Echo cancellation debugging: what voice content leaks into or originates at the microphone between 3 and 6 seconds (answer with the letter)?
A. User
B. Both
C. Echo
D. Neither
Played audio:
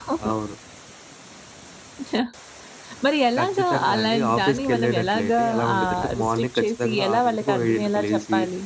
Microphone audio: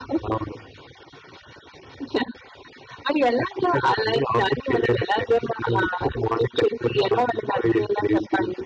C